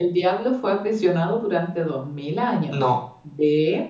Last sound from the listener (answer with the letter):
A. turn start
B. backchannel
B